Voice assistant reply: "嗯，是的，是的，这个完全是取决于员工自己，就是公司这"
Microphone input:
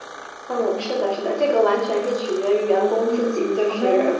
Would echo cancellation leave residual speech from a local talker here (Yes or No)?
Yes